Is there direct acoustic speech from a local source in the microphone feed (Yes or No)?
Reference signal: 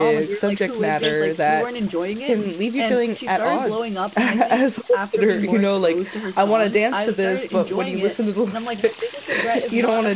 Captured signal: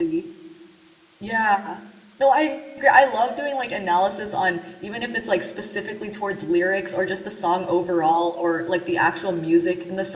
Yes